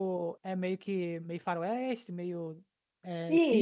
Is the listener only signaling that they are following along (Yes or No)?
No